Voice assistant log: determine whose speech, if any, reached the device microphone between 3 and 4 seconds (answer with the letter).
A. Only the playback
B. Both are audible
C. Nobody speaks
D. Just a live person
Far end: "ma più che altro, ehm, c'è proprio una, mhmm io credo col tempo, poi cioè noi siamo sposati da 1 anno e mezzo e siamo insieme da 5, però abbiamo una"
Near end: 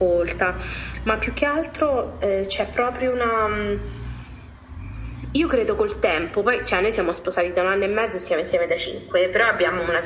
A